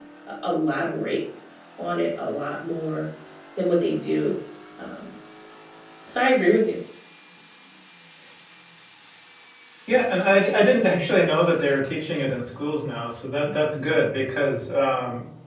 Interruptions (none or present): none